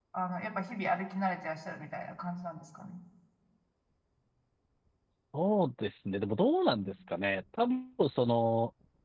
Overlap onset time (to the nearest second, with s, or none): none